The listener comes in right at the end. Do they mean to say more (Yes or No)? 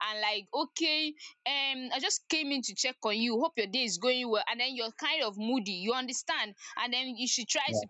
No